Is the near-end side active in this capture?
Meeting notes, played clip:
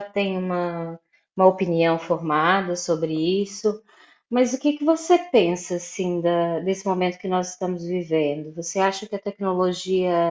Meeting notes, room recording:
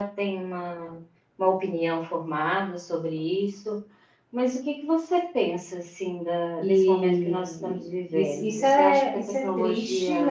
Yes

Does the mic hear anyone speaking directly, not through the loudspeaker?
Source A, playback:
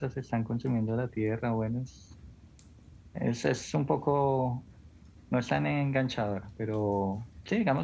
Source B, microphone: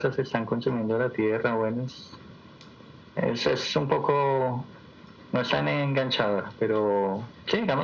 No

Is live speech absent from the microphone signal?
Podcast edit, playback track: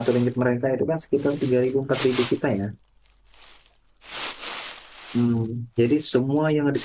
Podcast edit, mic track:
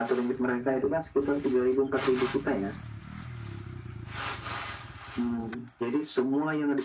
Yes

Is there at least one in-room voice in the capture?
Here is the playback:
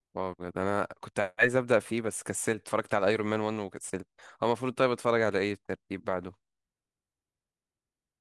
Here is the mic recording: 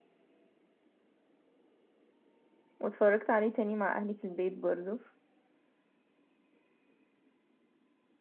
Yes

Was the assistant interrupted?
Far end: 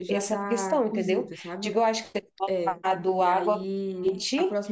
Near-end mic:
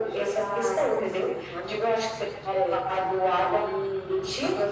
No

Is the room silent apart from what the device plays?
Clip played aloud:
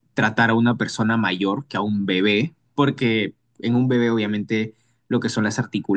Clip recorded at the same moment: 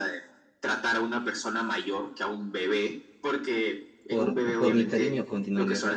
No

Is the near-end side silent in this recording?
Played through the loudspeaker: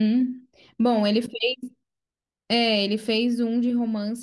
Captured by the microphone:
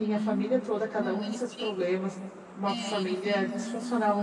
No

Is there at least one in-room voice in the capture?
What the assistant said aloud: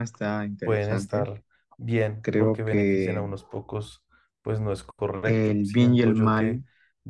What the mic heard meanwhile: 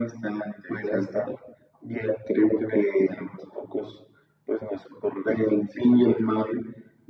No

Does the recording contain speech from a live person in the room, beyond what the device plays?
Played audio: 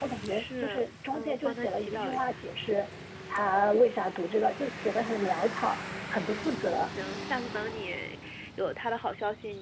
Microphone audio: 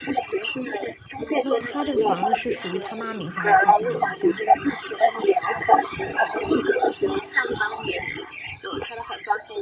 Yes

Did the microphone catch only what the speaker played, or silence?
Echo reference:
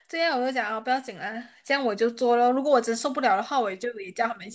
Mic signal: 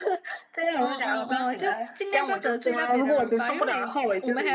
No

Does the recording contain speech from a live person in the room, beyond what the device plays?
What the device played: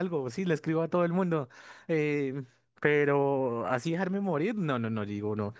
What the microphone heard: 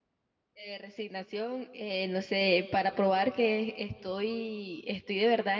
Yes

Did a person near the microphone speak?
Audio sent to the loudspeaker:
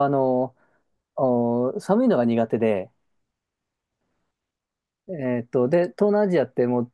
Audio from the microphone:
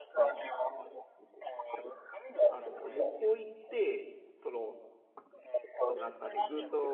Yes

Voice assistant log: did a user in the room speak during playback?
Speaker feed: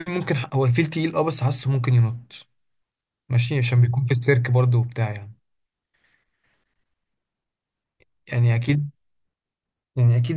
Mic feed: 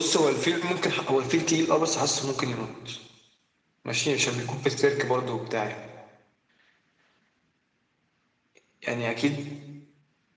No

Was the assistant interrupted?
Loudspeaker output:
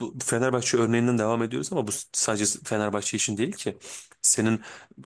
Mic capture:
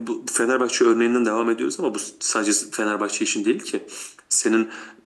No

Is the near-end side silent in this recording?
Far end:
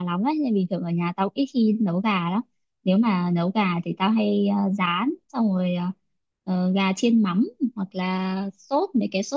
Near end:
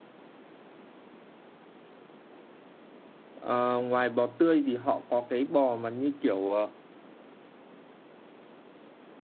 No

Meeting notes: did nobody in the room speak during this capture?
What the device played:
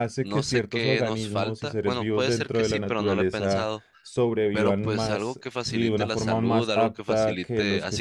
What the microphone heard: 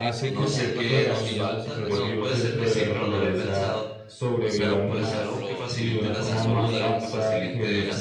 No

